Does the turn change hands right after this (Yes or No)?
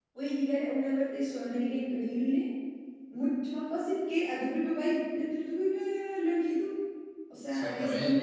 No